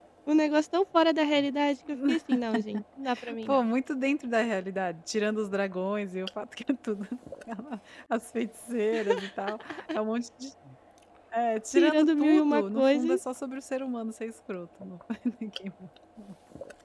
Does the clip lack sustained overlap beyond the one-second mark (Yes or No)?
No